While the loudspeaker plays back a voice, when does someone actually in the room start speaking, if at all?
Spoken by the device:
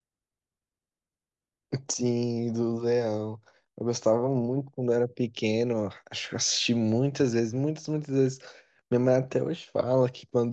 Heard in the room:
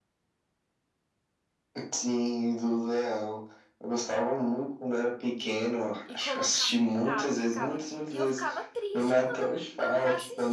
6.0 s

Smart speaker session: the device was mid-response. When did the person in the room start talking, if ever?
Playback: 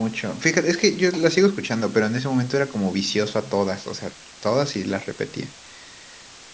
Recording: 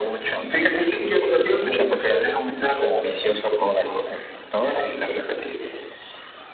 none

